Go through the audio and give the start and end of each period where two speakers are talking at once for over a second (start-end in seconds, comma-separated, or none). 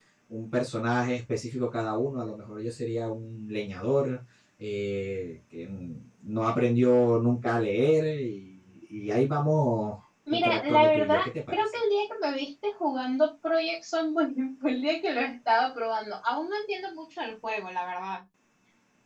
10.3-11.8